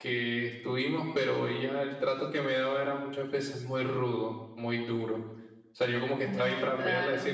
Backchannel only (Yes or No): Yes